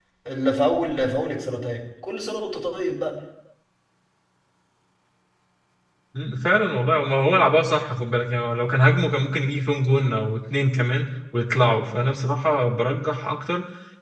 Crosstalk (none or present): none